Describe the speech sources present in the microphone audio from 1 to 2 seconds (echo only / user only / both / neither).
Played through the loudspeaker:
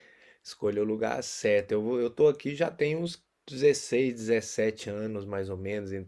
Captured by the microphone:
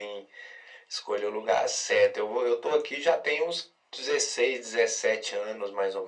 echo only